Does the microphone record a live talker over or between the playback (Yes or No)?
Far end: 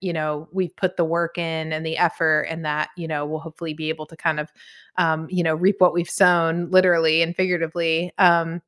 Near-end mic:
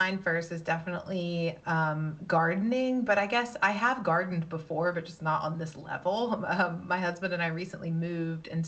Yes